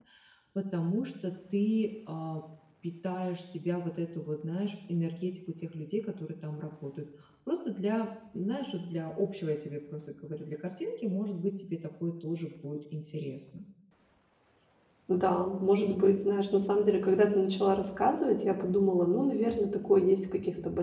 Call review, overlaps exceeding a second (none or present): none